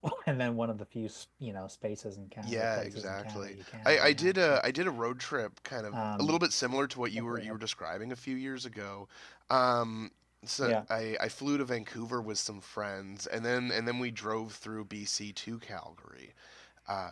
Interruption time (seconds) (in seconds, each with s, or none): 2.4 s